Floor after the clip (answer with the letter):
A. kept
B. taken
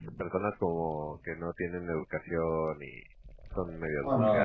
B